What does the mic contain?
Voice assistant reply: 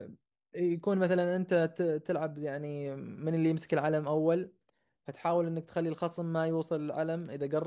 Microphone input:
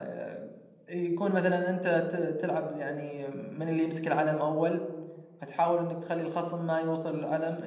echo only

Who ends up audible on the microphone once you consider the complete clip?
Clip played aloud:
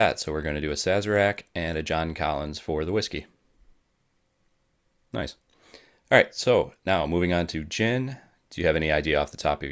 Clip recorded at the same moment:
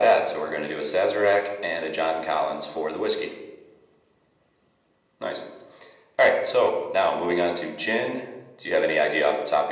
echo only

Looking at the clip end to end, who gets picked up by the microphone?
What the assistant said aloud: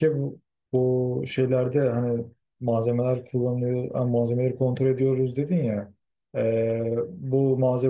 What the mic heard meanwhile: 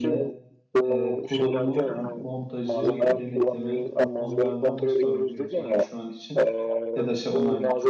both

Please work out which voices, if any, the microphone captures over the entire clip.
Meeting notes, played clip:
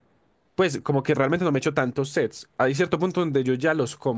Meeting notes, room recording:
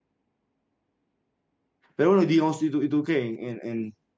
user only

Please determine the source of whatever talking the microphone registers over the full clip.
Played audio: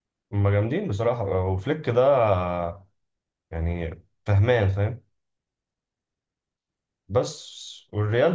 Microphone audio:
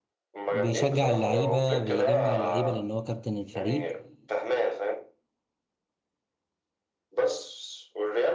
both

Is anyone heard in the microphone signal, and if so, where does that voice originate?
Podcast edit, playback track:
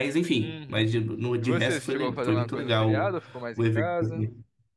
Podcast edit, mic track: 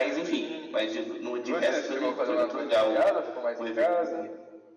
echo only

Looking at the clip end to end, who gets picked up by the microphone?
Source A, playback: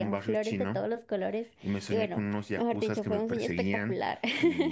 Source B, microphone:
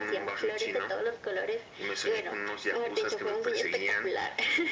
echo only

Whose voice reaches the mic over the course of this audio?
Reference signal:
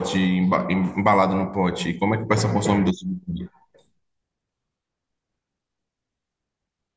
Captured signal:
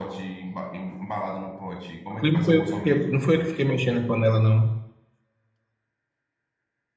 both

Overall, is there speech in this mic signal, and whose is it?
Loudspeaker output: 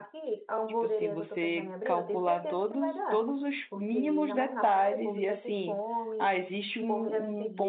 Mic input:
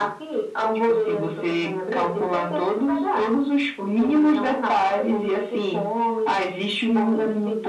echo only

